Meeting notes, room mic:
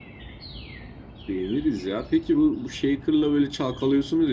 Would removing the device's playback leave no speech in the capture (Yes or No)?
No